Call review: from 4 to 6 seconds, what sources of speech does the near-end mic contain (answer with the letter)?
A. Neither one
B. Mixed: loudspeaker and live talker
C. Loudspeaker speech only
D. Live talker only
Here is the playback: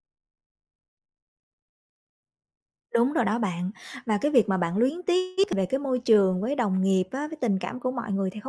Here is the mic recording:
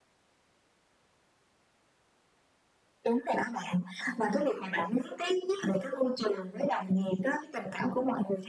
C